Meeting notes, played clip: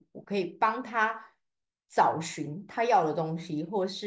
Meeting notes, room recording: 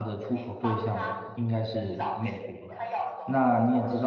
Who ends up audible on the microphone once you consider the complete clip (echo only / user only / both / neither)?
both